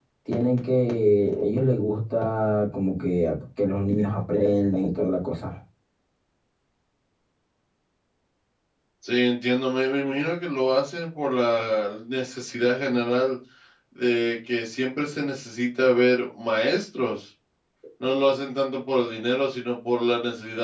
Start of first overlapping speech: none

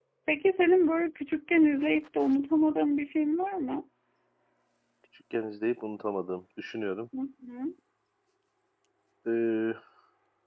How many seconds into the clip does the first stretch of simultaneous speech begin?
none

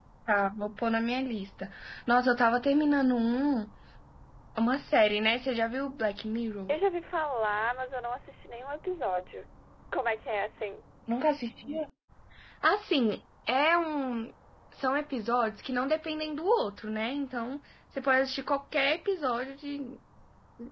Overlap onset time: none

